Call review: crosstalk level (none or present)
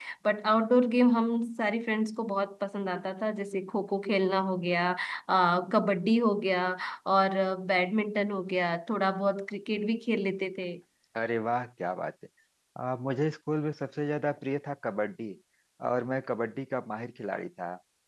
none